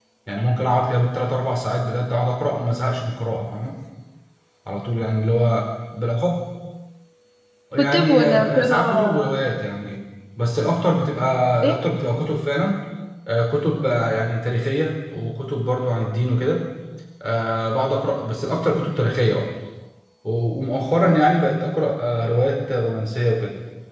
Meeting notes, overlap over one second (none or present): present